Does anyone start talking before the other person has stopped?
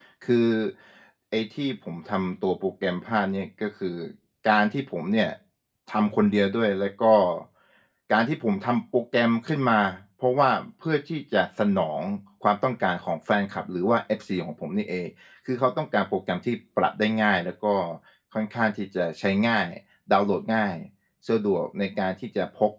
No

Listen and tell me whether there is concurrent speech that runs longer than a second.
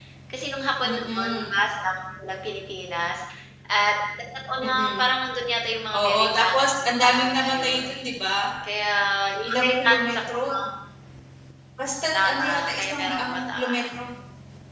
Yes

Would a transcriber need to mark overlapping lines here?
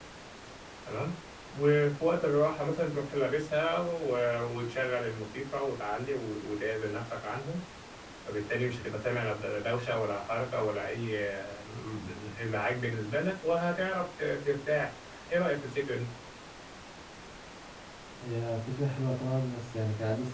No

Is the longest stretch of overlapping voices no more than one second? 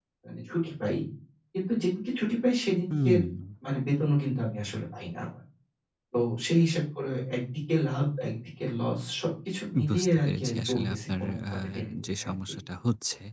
No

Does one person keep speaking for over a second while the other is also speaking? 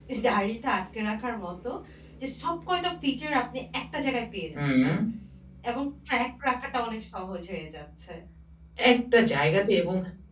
No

